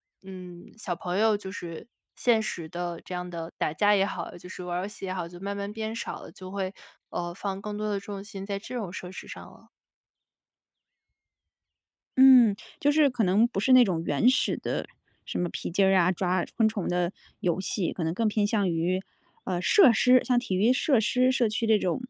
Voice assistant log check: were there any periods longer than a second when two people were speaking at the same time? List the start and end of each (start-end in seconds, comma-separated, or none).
none